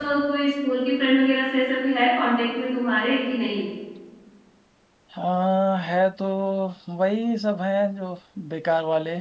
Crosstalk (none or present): none